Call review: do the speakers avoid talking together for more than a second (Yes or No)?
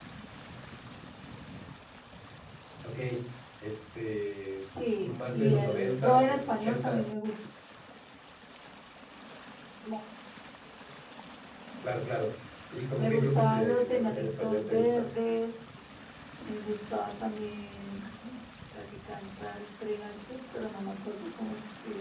No